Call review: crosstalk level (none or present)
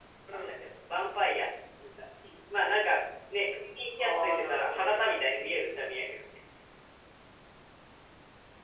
present